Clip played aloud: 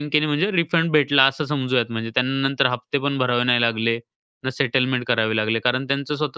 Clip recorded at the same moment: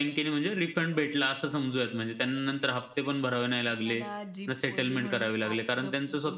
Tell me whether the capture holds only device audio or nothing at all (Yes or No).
No